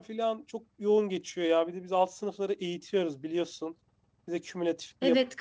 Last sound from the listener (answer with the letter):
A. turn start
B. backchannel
A